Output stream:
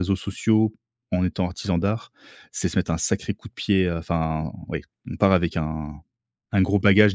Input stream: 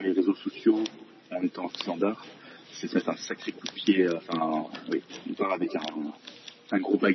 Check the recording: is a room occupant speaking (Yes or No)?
No